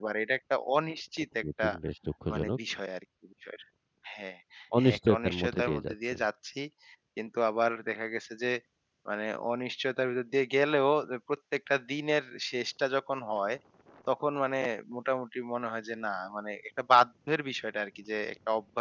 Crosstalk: present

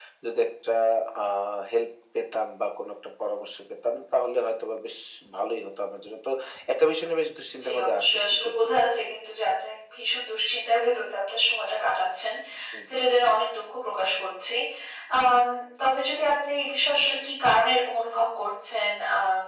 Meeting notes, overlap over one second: present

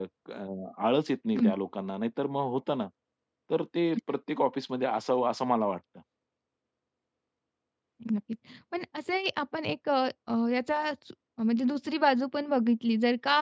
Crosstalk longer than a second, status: none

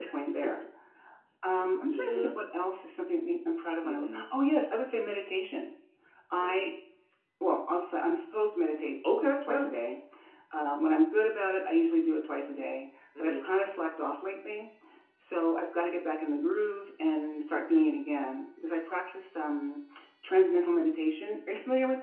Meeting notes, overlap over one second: none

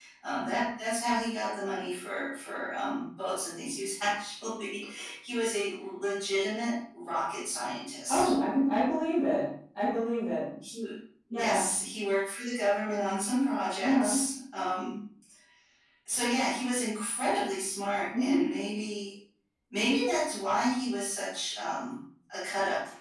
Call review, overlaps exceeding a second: none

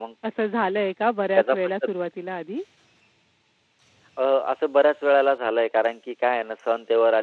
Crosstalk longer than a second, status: none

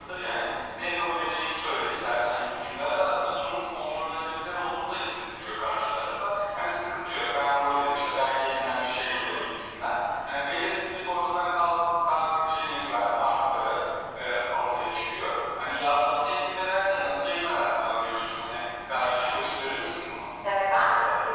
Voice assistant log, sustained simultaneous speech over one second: none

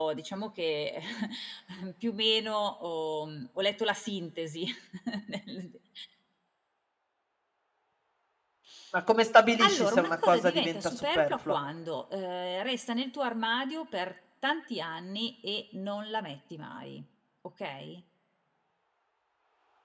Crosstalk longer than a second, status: present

